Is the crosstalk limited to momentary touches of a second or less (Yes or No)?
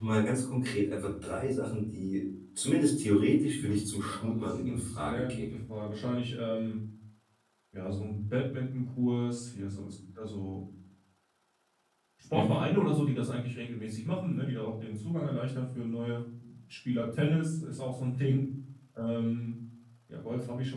No